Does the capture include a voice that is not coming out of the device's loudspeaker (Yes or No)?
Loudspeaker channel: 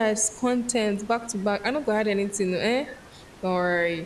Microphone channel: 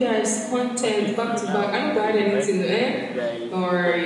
Yes